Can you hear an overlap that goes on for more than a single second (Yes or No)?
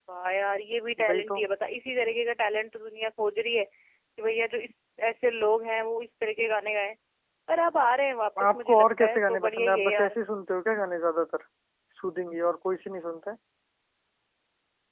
Yes